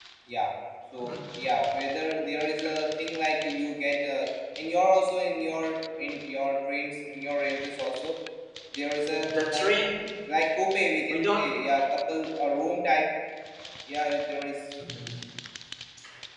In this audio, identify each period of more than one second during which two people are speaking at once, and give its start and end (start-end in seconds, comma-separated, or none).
none